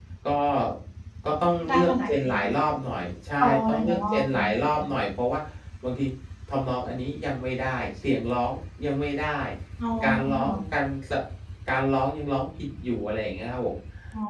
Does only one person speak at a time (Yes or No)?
No